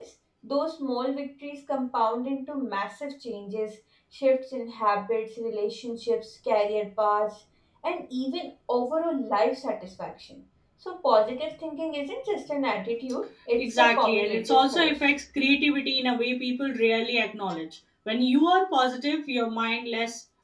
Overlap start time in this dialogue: 14 s

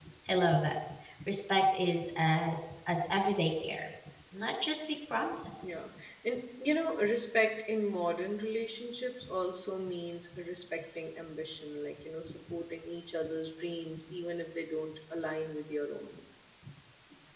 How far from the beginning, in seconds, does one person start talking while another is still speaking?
none

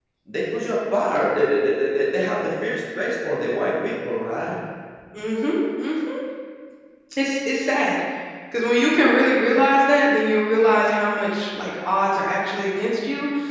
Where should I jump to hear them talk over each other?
none

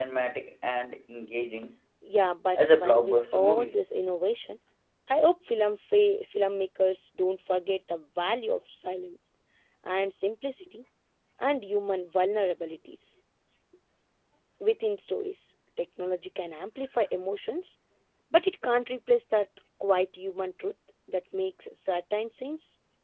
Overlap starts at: 3 s

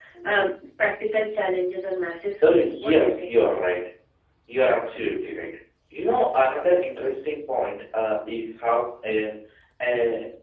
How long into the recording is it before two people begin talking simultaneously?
2 s

